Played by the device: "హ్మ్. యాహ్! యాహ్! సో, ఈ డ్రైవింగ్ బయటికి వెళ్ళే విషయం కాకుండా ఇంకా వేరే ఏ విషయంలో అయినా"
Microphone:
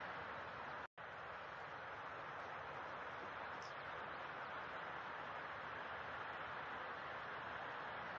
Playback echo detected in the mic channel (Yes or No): No